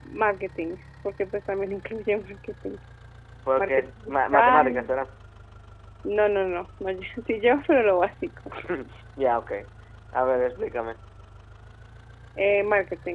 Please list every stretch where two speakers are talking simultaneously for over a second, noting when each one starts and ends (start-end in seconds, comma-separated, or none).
3.6-5.0